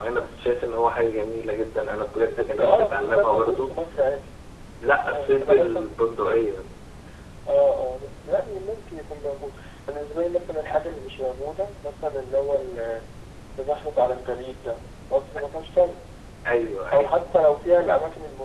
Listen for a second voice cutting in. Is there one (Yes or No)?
Yes